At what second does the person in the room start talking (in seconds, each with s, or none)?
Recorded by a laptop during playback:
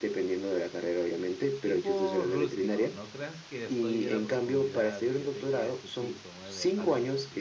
1.6 s